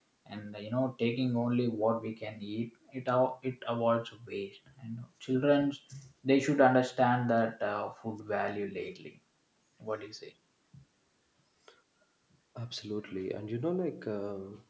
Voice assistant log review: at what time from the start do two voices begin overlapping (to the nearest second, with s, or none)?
none